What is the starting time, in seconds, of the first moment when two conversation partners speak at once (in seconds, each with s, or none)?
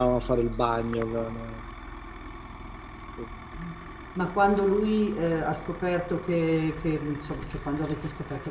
none